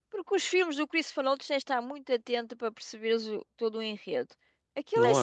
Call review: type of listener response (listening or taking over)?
listening